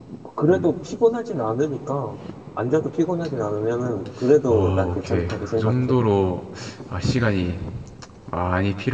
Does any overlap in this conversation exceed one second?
Yes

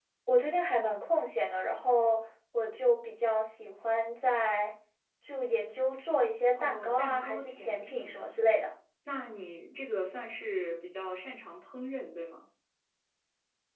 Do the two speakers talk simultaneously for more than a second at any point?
Yes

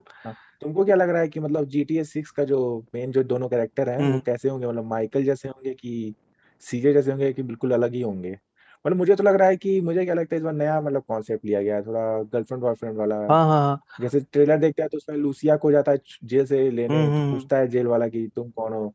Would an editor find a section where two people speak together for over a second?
No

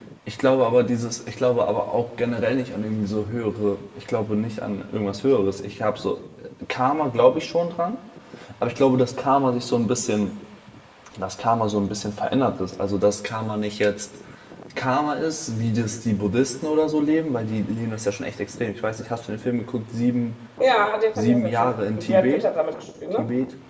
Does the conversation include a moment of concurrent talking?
Yes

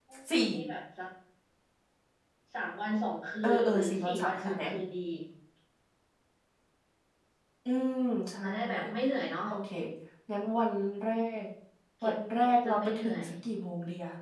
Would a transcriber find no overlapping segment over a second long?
No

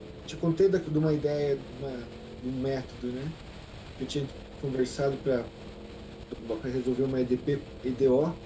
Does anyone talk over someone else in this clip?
No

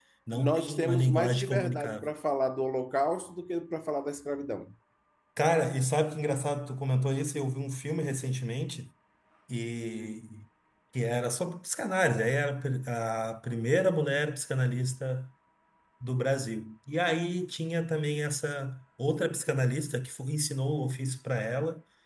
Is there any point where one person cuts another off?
Yes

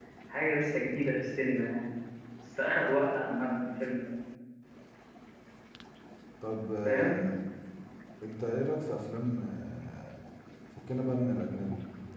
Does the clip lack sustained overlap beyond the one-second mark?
Yes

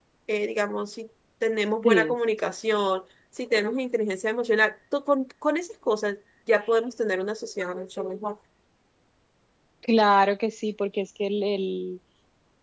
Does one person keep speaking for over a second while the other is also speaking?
No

